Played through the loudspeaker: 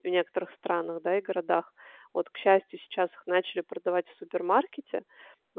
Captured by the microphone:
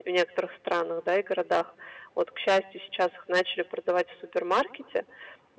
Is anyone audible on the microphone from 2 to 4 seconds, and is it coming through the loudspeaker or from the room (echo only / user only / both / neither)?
echo only